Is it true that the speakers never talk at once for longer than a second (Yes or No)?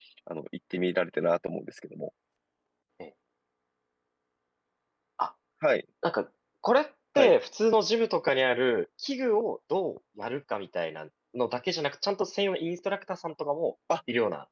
Yes